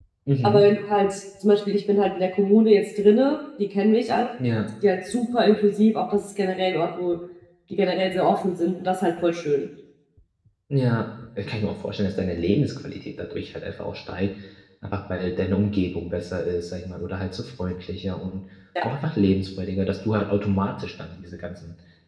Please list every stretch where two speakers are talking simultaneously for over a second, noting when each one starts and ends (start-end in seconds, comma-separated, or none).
none